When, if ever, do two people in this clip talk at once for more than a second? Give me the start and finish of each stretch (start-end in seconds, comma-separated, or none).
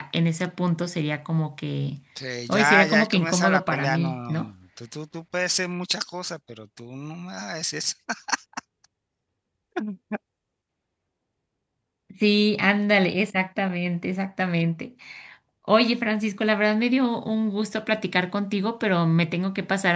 2.5-4.5